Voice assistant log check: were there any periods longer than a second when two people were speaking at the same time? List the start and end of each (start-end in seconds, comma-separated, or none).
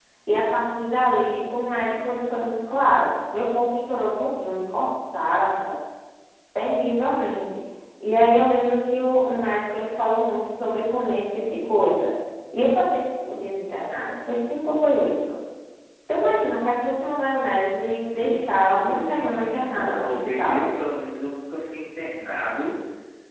18.1-20.6